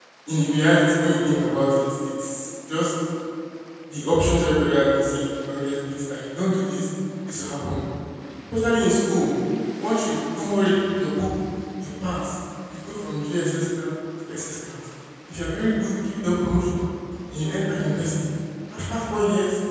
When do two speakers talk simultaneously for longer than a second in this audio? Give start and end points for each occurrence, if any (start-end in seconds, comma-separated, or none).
none